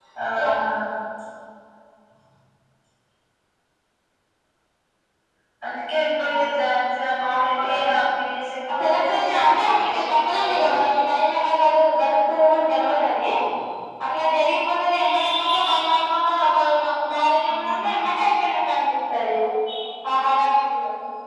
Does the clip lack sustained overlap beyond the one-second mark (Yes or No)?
No